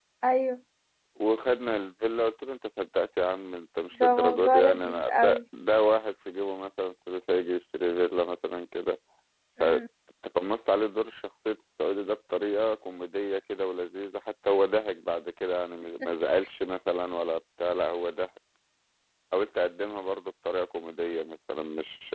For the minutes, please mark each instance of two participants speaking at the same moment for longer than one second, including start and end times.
4.0-5.4

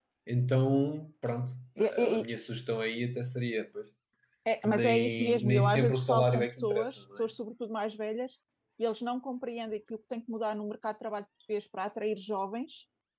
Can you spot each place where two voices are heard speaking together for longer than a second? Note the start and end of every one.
4.6-7.2

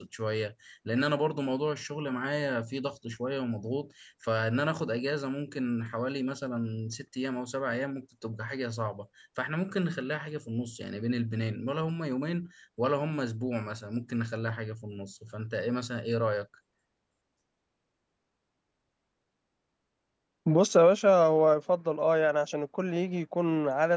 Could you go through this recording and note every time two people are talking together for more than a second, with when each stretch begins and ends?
none

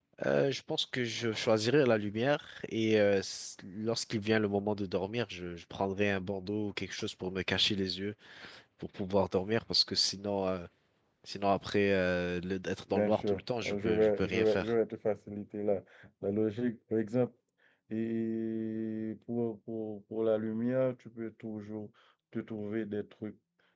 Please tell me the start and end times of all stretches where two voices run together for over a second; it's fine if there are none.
12.9-14.7

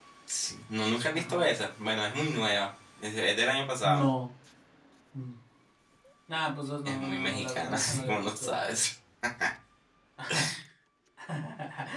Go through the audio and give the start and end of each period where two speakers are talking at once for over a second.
6.8-8.5

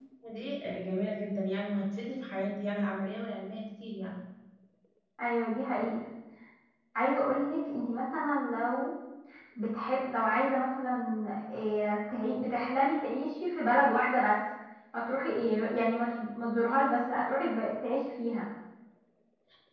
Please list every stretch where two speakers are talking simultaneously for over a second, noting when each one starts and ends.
none

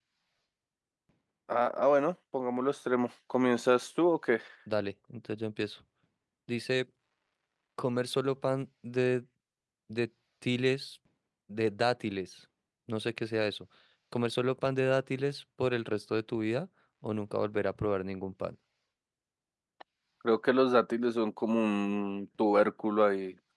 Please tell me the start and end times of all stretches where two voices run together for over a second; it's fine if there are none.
none

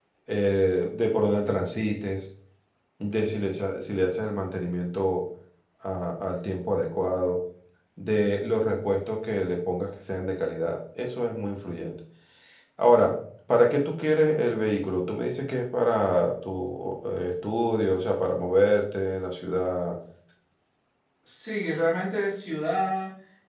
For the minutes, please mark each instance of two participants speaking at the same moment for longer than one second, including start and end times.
none

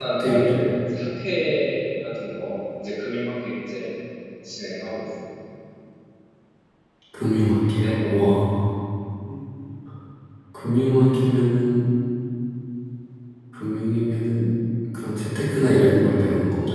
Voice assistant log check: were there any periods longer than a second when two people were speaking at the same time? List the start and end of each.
none

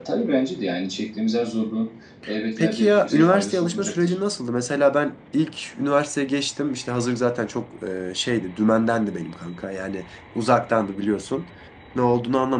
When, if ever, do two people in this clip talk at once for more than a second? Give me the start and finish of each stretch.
2.6-4.2

